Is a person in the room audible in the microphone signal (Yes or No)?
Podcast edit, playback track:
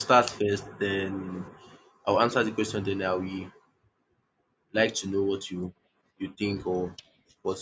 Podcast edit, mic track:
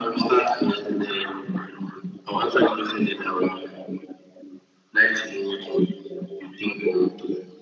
No